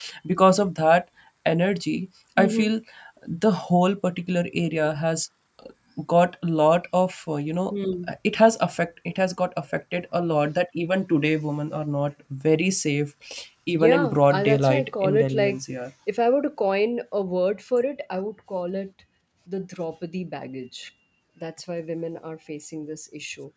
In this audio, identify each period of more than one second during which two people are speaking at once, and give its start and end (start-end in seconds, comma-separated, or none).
13.7-15.6